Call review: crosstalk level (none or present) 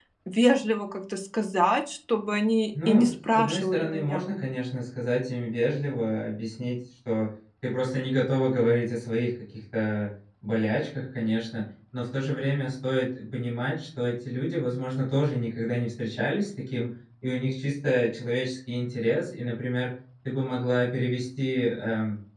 present